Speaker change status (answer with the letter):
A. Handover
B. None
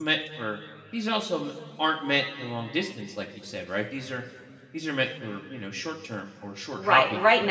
A